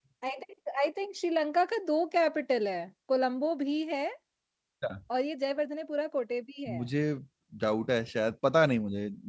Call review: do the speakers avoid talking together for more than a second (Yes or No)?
Yes